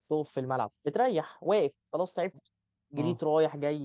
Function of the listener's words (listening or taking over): listening